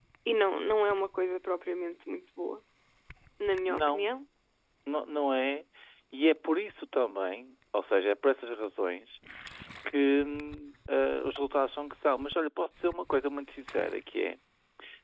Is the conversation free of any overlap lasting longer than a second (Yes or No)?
Yes